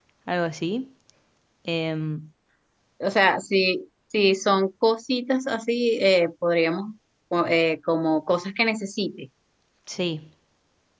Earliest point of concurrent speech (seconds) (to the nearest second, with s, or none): none